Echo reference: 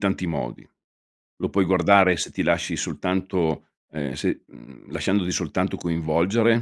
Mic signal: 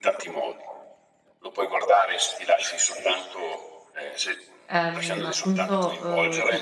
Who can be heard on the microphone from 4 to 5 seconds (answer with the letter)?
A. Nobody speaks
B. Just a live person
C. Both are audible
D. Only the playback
C